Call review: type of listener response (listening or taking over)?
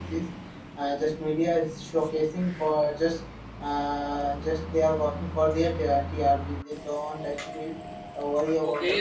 taking over